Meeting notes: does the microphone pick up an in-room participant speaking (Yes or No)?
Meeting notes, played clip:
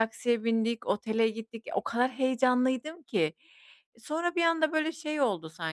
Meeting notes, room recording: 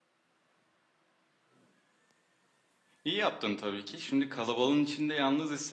Yes